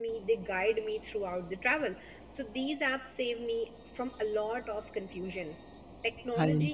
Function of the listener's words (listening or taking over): listening